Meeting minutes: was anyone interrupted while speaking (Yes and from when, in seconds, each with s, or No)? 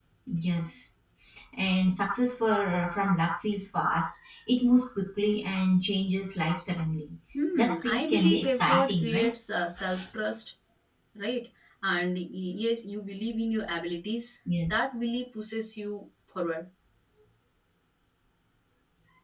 Yes, from 7.5 s